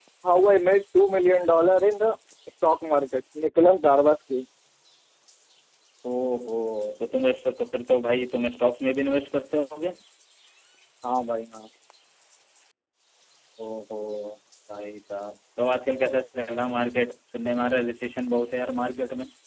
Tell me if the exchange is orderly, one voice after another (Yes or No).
Yes